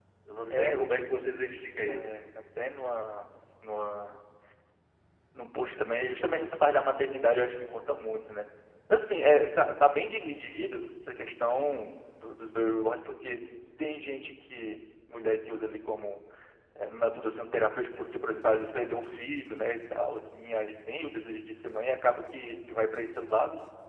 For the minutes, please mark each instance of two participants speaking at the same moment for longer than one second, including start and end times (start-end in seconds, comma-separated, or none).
0.5-2.1